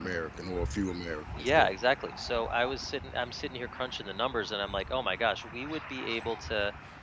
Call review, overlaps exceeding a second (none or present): none